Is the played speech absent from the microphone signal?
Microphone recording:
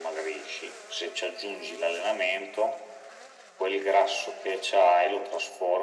No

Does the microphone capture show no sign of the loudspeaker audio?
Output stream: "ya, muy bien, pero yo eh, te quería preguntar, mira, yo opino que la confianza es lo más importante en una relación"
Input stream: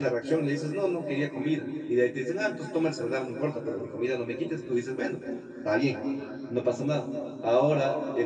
Yes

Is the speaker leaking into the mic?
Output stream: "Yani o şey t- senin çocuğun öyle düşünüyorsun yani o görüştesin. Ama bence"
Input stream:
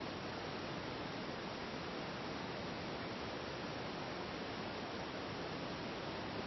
No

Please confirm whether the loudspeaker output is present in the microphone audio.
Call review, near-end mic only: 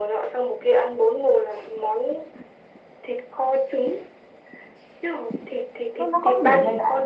Yes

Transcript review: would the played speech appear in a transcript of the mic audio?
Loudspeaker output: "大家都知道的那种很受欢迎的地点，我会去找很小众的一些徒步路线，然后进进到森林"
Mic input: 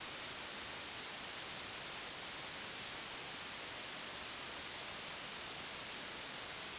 No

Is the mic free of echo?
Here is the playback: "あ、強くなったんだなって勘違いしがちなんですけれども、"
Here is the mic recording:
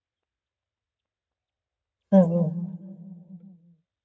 Yes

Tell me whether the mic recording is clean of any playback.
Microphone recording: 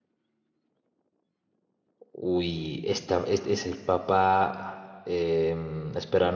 Yes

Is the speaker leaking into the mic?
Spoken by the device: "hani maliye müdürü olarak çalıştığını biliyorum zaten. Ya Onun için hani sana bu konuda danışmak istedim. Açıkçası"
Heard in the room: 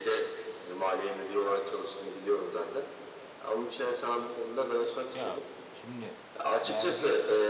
Yes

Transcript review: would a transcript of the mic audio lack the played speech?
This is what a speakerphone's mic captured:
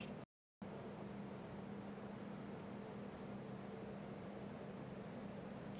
Yes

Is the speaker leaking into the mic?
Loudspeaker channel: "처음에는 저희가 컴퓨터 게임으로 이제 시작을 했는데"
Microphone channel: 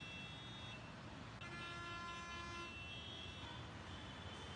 No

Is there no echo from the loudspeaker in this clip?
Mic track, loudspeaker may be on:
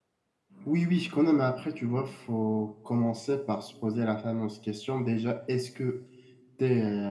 Yes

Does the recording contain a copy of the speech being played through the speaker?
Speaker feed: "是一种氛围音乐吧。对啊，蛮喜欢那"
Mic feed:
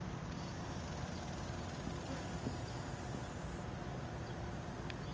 No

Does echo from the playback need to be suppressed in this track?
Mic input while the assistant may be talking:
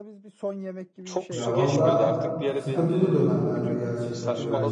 Yes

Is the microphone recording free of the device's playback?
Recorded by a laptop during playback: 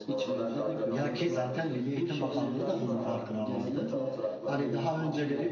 No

